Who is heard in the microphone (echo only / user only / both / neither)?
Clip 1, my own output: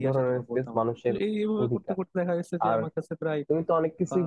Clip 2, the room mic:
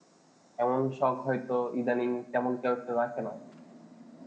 user only